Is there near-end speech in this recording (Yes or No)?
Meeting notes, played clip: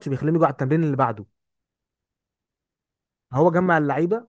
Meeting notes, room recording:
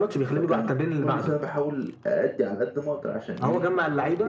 Yes